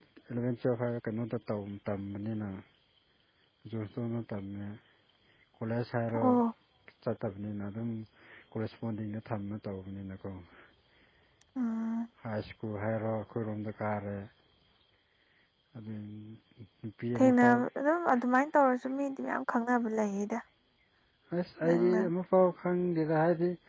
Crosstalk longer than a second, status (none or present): none